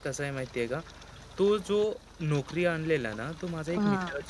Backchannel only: Yes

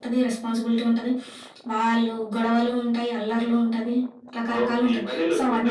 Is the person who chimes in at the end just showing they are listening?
No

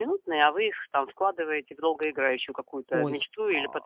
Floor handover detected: Yes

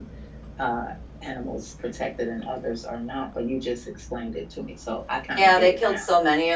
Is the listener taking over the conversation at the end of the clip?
Yes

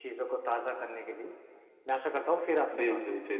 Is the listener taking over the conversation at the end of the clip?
Yes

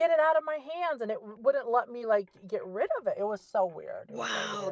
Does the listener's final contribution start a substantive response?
Yes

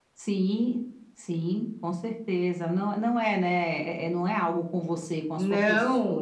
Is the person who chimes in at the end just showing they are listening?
No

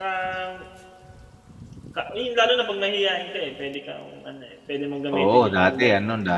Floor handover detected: Yes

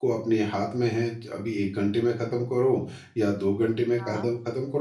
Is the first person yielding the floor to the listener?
No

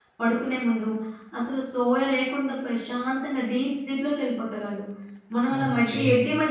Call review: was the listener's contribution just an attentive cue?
No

